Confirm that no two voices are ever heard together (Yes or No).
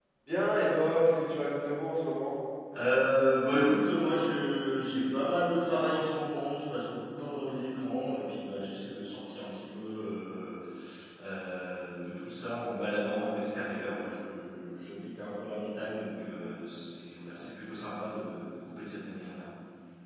Yes